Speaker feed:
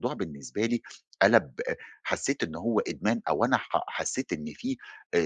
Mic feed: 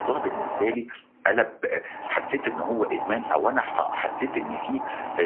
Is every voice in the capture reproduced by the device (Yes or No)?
Yes